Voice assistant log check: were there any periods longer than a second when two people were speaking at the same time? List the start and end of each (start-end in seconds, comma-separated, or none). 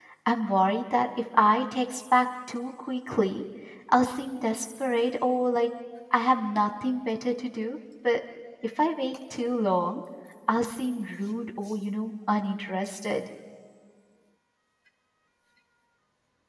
none